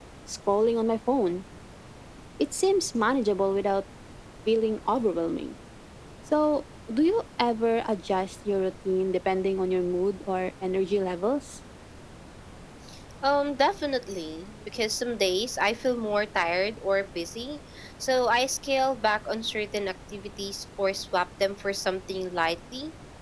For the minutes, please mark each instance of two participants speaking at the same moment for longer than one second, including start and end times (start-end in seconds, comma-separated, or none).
none